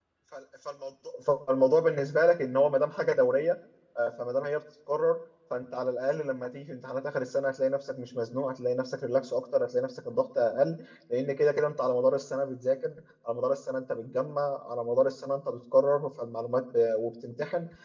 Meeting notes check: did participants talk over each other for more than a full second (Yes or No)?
No